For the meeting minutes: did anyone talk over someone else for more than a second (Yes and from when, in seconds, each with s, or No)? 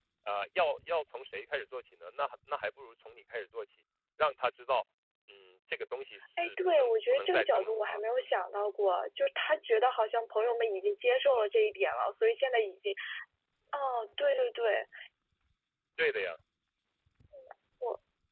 Yes, from 6.4 s